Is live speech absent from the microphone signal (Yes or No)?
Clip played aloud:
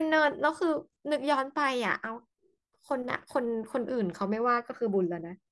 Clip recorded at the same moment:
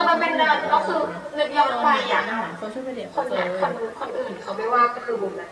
No